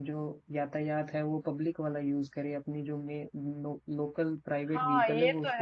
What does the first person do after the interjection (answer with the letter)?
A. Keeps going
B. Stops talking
B